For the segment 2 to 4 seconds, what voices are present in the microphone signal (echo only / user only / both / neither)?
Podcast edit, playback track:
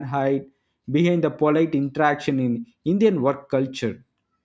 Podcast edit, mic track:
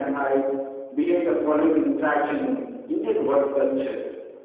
echo only